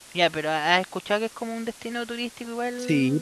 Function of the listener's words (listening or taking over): taking over